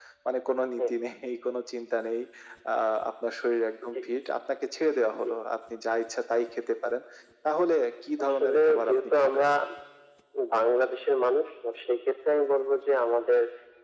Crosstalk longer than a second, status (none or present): present